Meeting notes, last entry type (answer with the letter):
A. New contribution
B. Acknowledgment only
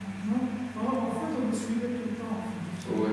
B